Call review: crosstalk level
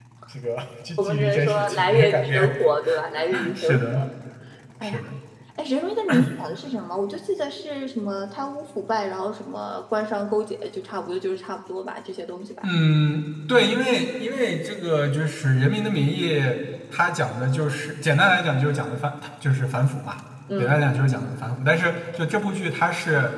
present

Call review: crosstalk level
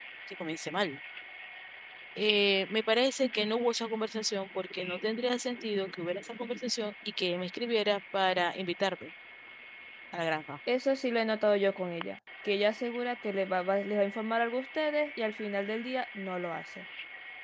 none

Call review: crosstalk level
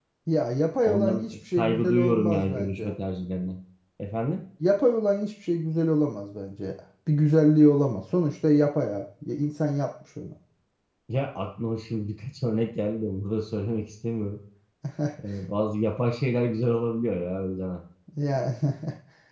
present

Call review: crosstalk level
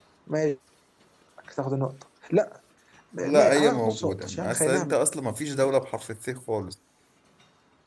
present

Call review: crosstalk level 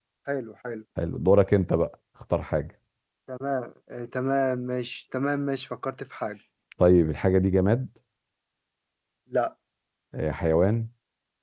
none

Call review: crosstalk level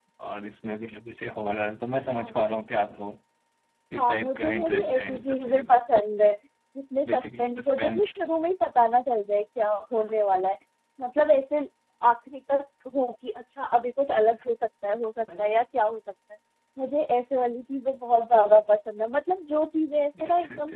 present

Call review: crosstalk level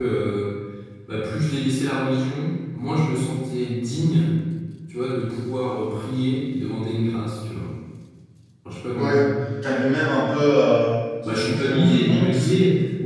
present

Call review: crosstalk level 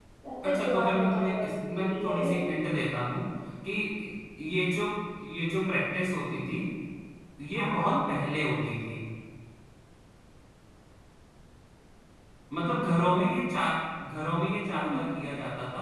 present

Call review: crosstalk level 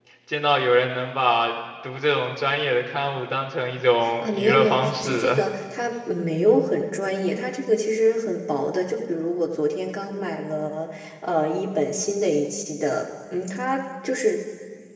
present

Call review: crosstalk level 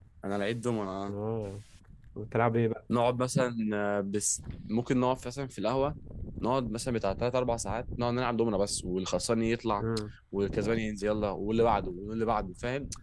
none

